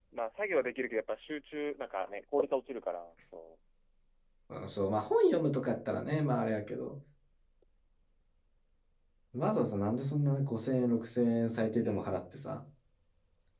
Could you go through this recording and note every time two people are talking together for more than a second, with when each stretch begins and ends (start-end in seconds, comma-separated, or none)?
none